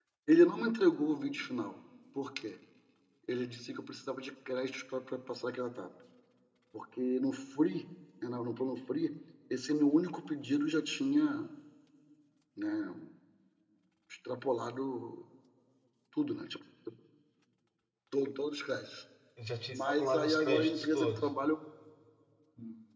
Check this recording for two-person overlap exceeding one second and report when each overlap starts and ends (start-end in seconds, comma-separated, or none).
19.7-21.3